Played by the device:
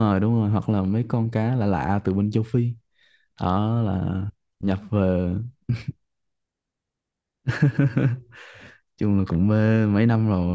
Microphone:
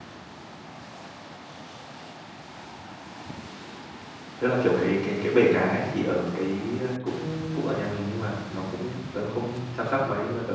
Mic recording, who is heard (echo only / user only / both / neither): user only